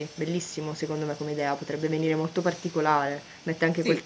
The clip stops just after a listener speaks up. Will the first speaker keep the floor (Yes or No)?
Yes